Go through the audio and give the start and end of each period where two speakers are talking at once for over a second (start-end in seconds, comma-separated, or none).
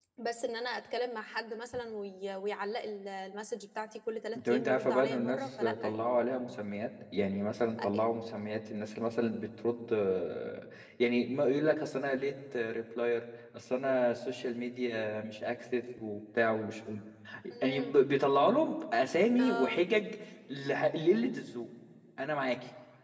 4.5-6.5